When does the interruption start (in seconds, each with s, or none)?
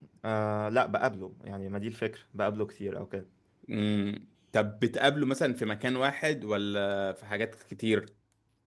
none